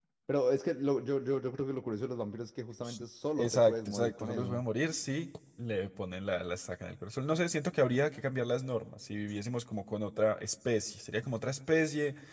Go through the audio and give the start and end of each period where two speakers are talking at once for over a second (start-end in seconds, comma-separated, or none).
3.4-4.6